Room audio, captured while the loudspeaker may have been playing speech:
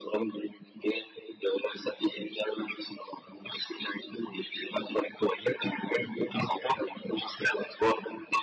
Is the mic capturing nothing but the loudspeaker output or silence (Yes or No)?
Yes